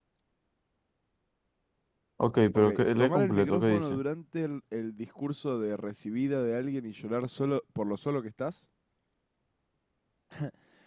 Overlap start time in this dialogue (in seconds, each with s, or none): 2.5 s